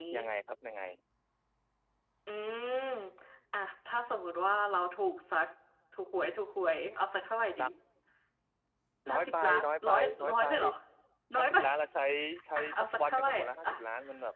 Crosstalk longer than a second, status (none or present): present